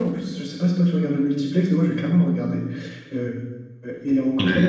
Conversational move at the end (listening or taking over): listening